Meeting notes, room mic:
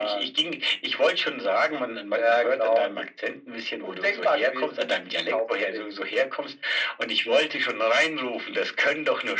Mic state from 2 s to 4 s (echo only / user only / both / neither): echo only